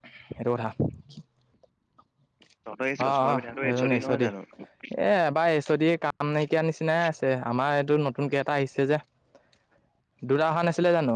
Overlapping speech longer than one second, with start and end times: 3.1-4.3

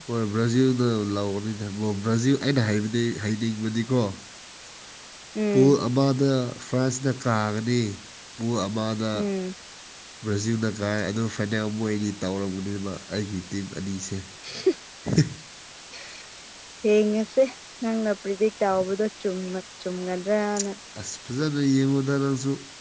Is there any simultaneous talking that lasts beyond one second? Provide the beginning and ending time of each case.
none

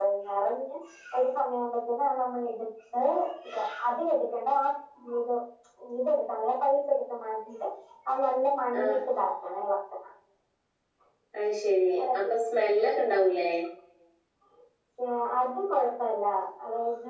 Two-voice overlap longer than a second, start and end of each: none

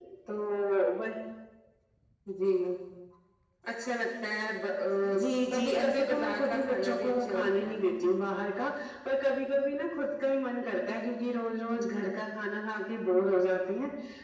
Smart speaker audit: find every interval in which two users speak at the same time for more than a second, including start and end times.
5.5-7.7

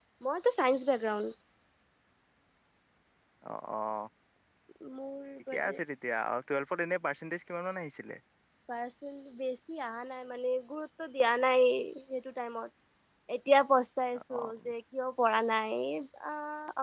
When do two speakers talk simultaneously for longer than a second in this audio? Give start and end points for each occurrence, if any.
none

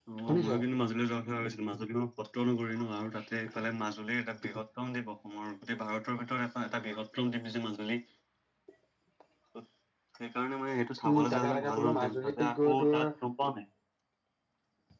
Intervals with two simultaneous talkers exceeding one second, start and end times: 11.1-13.0

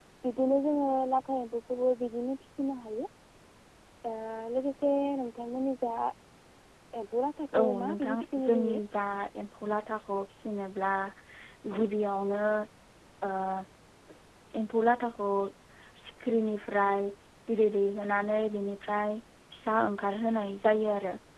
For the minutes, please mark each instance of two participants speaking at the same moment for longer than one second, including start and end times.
7.6-8.8

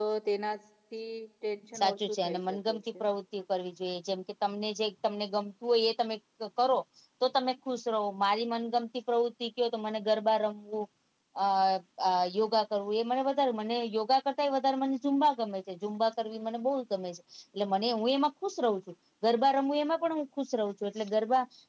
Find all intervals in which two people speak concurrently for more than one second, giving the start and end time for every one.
1.8-3.0

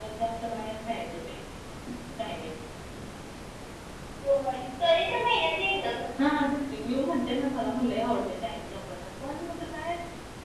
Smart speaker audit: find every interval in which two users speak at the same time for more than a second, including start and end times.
none

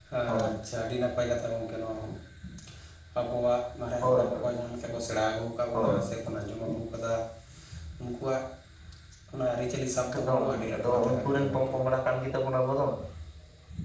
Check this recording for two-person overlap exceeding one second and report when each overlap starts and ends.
10.1-11.8

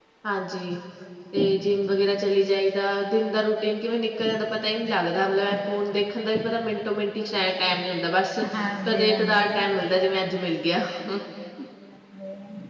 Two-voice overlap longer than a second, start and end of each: 8.8-10.0

